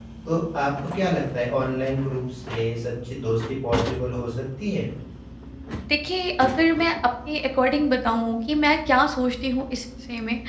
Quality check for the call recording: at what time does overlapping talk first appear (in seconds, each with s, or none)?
none